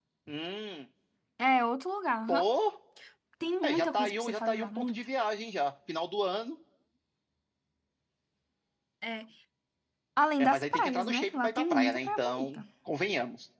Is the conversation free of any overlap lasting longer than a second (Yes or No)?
No